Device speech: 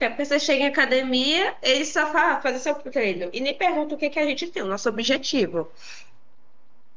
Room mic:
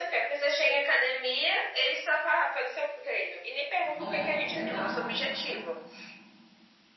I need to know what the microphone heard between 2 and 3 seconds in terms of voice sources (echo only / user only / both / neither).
echo only